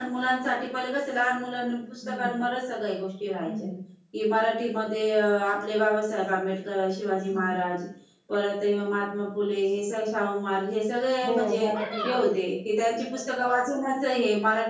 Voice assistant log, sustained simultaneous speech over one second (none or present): none